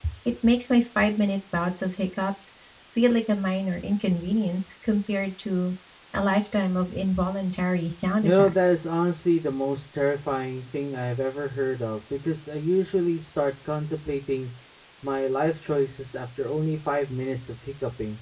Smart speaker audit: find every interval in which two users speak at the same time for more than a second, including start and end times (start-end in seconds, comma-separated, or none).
none